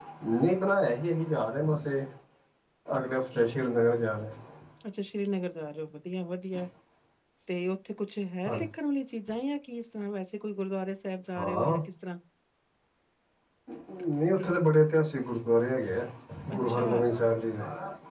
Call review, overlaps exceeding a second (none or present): none